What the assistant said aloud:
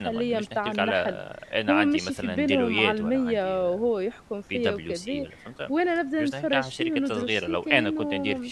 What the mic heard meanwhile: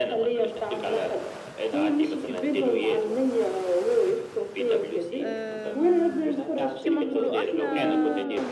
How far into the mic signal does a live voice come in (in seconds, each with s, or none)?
5.2 s